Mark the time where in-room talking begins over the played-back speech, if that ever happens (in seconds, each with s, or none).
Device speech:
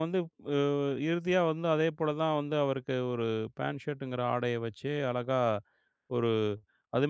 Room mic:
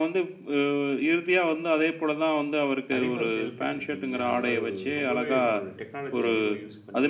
3.0 s